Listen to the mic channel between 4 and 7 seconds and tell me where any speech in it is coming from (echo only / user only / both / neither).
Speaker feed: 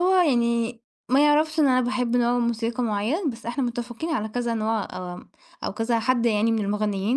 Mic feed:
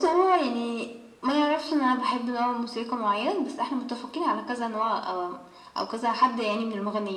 echo only